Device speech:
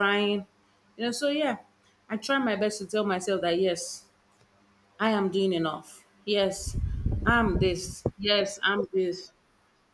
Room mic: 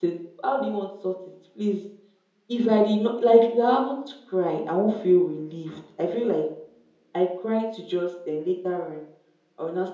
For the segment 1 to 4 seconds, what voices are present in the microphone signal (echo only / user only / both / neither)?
user only